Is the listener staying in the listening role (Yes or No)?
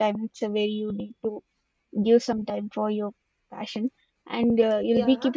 Yes